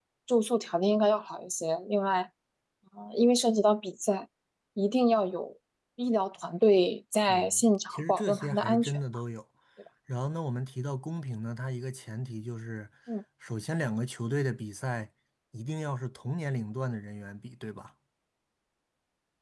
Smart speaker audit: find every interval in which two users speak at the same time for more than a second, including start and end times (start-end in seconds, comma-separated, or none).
7.3-9.0